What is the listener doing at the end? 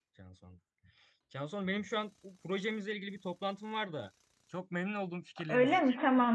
taking over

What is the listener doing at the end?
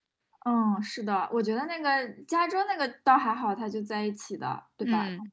listening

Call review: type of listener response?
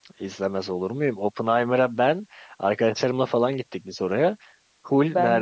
listening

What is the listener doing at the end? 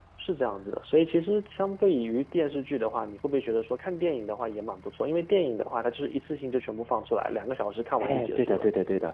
taking over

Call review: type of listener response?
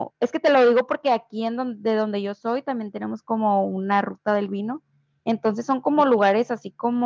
listening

